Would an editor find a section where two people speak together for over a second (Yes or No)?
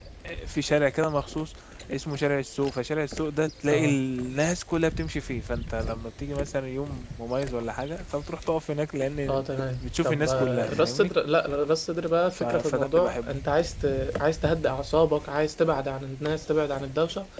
Yes